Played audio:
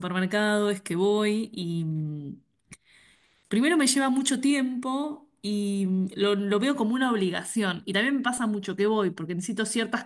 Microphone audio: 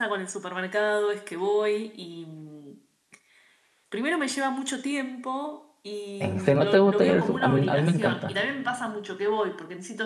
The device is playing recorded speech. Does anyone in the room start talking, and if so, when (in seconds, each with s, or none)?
6.2 s